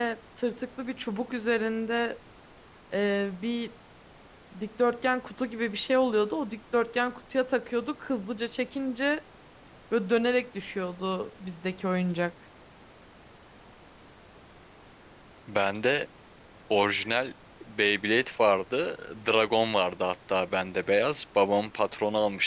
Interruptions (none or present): none